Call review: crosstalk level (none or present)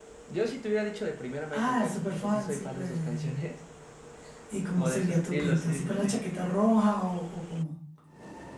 present